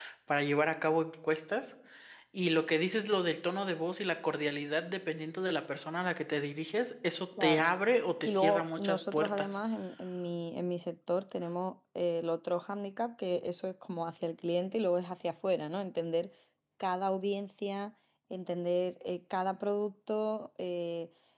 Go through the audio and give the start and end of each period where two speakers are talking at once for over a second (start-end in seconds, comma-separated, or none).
8.2-9.6